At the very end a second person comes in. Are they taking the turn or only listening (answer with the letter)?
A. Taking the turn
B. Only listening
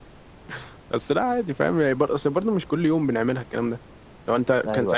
B